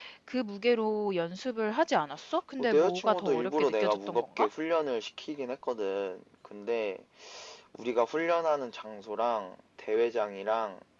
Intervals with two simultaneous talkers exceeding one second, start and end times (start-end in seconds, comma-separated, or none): 2.6-4.5